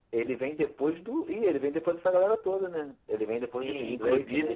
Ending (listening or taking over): taking over